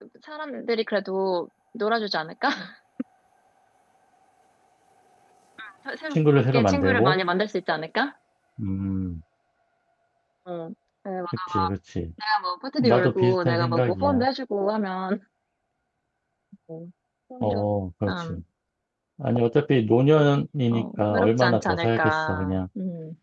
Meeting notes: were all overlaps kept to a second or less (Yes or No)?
No